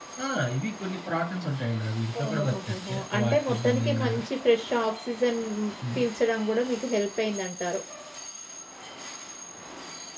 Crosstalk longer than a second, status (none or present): present